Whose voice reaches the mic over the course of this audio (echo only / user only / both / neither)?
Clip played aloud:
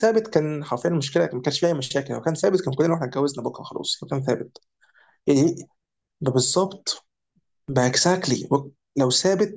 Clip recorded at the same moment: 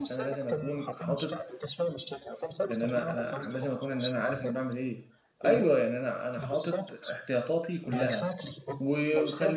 both